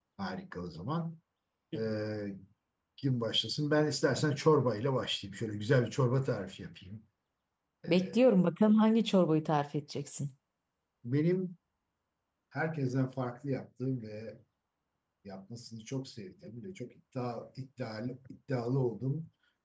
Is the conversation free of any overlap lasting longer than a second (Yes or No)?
Yes